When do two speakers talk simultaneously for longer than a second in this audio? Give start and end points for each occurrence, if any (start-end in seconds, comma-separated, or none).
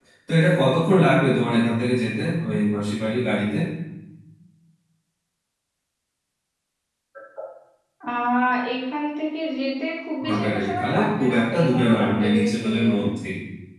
10.2-13.0